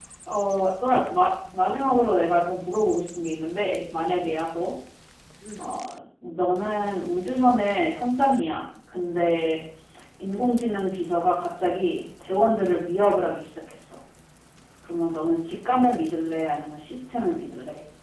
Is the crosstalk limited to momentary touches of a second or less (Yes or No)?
Yes